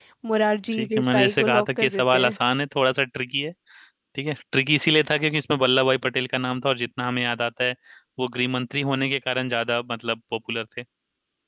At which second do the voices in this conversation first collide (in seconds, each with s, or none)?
0.7 s